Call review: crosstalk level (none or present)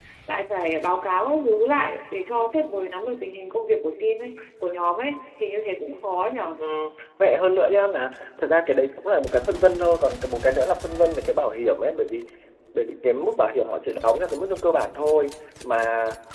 none